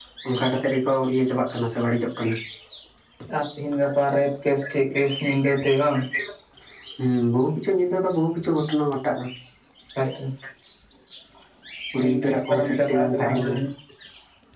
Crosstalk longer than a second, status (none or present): present